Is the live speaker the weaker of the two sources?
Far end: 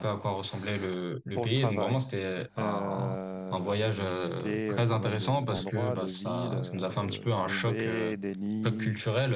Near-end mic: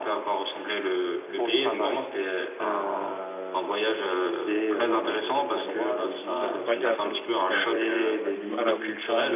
Yes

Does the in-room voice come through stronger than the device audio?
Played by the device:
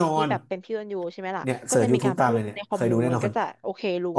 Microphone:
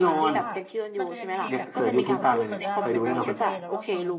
No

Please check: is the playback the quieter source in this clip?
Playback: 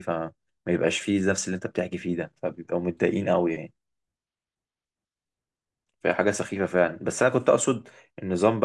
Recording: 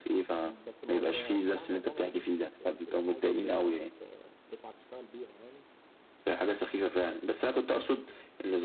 No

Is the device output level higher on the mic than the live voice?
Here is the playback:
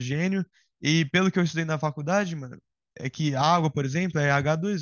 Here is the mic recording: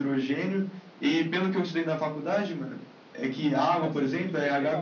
Yes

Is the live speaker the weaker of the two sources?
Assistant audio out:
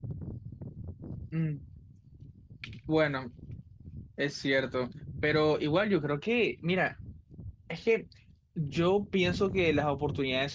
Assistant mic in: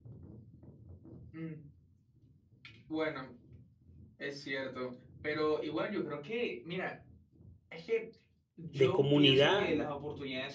No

